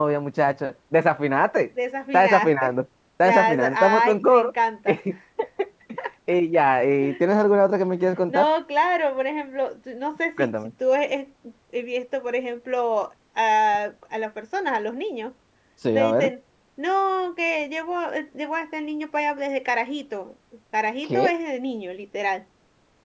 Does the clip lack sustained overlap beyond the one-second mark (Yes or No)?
No